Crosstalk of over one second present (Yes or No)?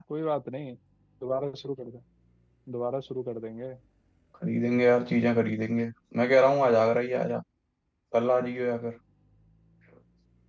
No